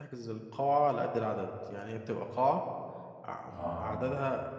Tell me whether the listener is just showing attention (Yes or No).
Yes